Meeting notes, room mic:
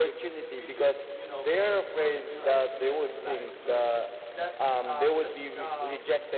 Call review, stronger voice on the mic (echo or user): echo